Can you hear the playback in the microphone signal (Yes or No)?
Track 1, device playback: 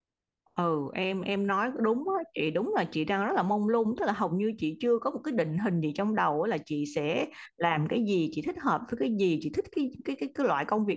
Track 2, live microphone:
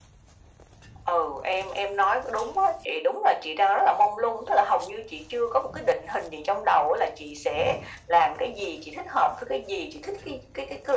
Yes